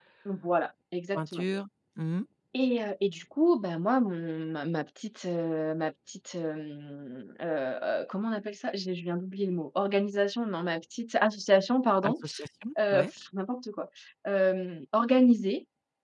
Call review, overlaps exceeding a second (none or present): none